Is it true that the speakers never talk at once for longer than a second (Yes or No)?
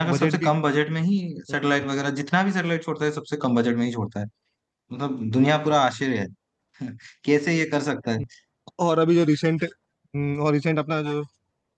Yes